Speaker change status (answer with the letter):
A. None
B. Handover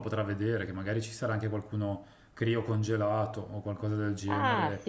B